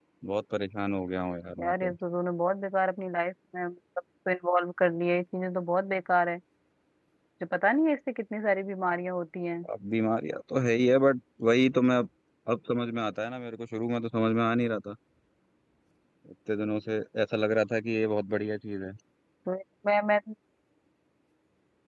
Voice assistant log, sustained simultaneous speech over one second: none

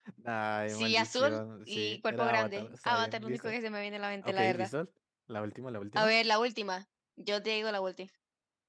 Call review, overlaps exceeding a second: present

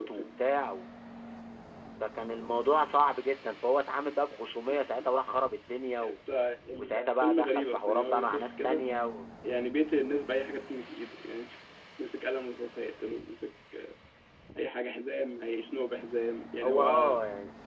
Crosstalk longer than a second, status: present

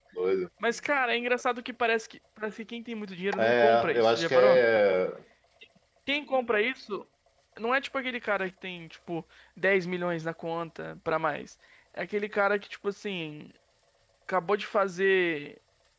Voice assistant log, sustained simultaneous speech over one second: present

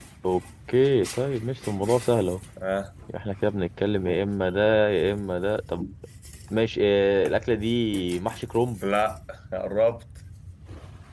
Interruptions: none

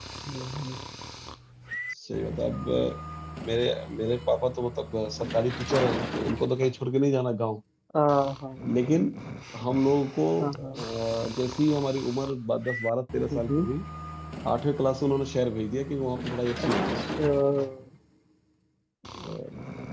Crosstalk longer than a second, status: none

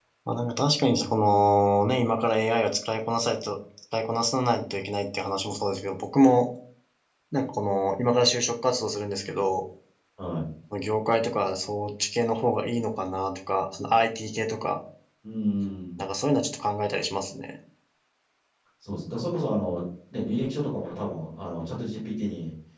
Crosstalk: none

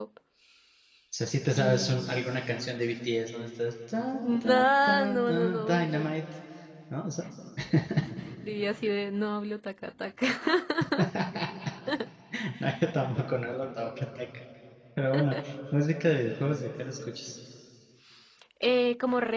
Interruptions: present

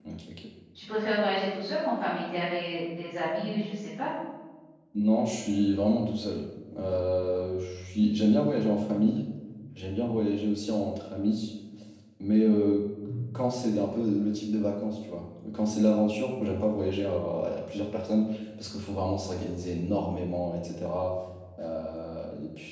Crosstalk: none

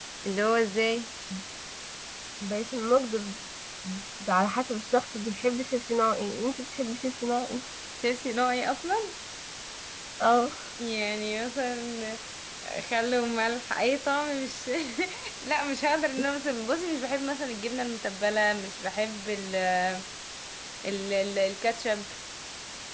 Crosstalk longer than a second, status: none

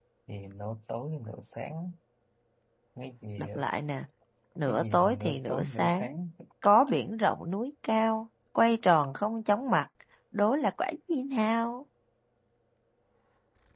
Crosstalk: present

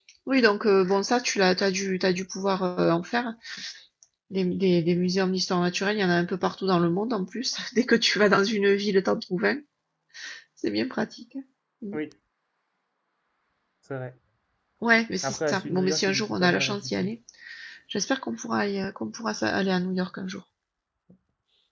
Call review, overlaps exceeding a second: present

